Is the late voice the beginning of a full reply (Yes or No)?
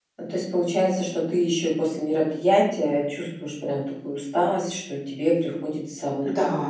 No